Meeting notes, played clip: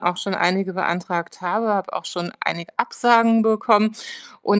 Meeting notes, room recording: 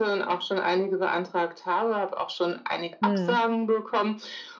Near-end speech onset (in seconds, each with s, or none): 3.0 s